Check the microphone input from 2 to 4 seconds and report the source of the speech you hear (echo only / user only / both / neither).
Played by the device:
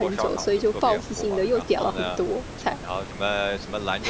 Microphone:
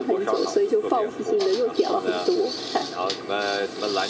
echo only